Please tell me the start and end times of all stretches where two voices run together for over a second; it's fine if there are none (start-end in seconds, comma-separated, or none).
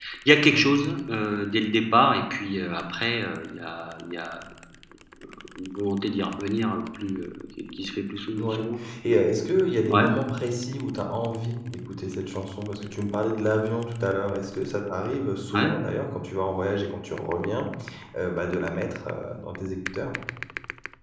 none